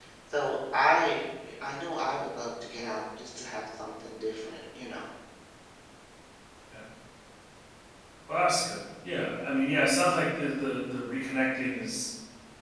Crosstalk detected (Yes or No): No